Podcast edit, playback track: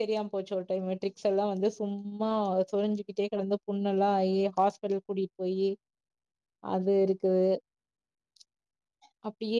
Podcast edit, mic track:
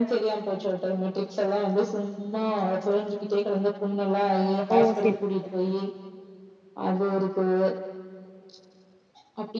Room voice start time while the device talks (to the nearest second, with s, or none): 5 s